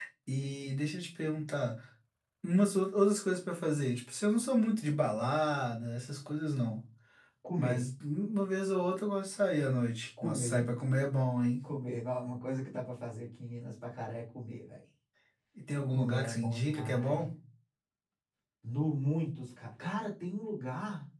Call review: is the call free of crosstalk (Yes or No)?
No